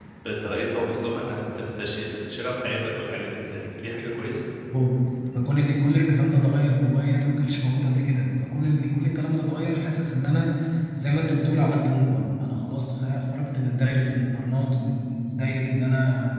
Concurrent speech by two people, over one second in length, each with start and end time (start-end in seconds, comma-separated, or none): none